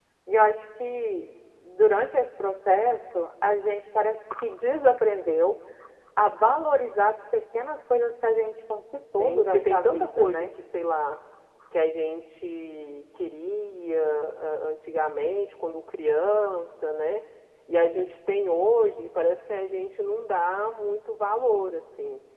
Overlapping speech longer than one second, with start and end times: 9.2-10.5

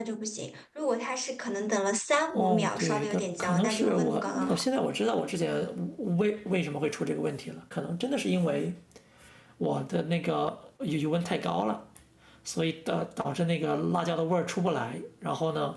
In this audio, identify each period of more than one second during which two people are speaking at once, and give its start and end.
2.3-4.6

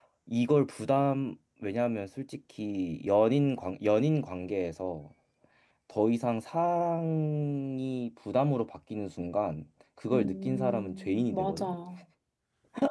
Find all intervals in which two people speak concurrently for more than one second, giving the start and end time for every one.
10.1-11.7

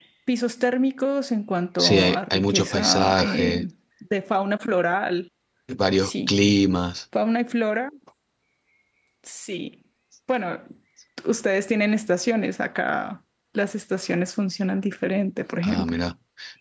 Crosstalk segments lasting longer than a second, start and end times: 1.8-3.6

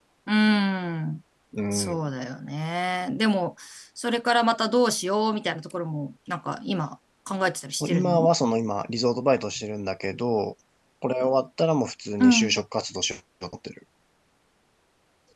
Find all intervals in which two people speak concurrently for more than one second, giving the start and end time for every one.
none

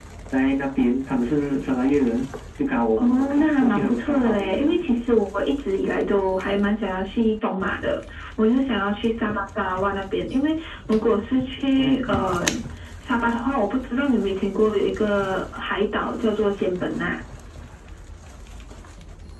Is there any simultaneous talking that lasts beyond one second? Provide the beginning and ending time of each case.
3.0-4.9

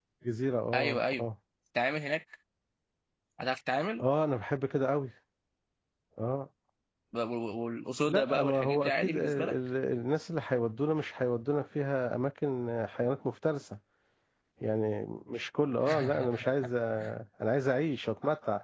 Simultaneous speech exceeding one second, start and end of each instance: 8.1-9.6

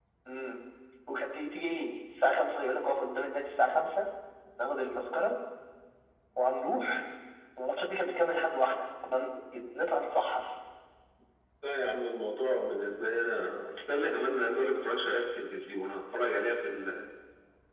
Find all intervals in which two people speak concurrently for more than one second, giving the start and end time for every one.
none

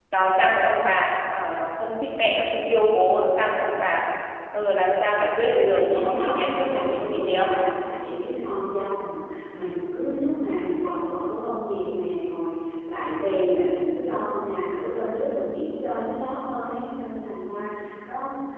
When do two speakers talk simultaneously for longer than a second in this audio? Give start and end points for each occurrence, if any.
5.7-7.5

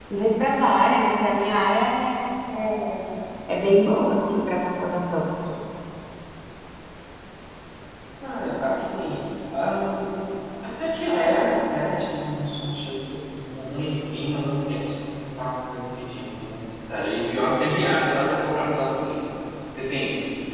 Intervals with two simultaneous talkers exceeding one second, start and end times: none

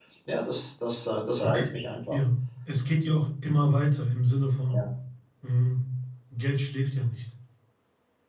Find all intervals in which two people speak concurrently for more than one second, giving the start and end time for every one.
none

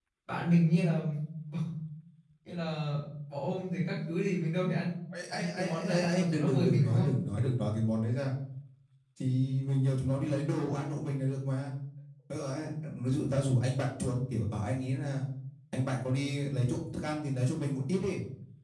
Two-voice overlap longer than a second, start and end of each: 5.3-7.1

